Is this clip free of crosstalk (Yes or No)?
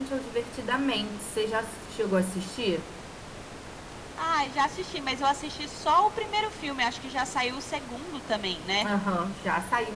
Yes